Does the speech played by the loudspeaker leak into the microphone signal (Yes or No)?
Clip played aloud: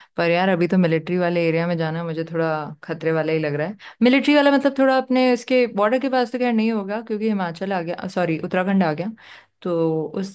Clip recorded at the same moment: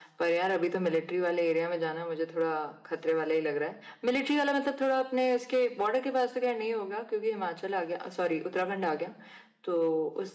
Yes